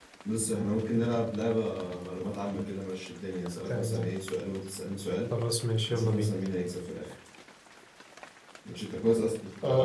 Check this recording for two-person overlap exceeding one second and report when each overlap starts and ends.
none

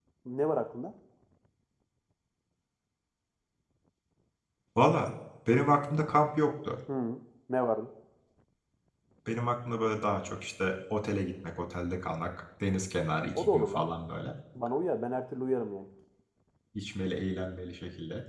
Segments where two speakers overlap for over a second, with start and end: none

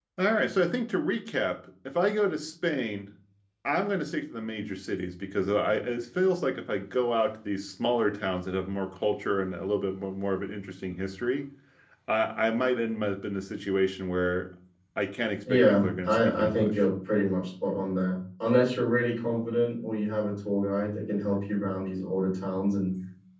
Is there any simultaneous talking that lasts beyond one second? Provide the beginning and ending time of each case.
15.5-16.8

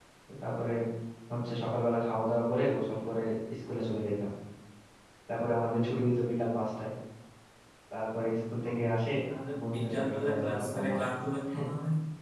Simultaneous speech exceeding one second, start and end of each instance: 9.6-11.1

